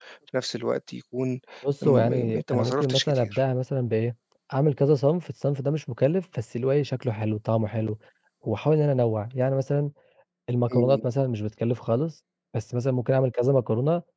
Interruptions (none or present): present